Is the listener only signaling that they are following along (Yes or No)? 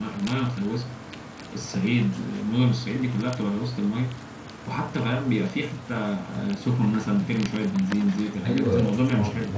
No